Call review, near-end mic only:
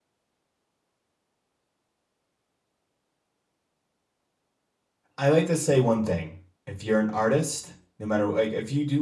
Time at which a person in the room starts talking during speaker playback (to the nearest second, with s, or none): 5 s